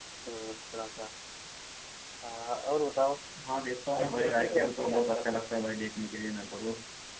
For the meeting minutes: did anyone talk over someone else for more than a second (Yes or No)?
Yes